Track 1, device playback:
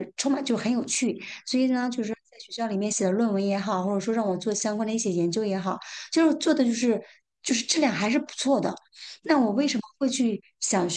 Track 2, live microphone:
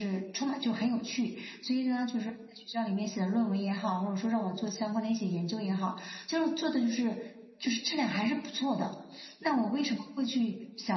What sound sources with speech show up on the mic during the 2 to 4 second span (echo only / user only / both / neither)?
echo only